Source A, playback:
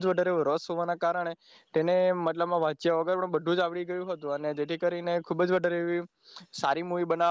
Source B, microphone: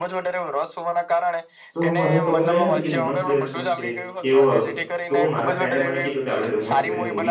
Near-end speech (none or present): present